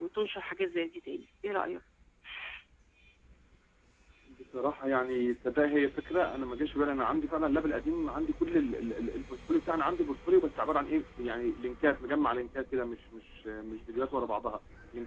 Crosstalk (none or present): none